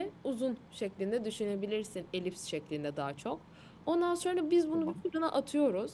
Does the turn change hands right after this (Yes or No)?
No